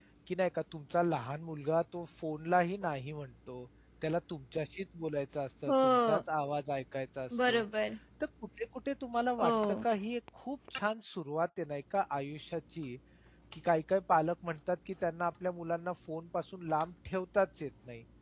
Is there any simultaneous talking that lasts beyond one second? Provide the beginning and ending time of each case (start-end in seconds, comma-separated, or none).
none